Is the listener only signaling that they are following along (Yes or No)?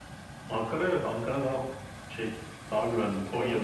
Yes